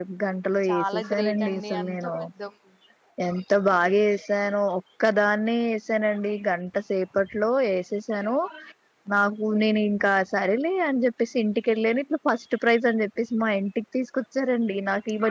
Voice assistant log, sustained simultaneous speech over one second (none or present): present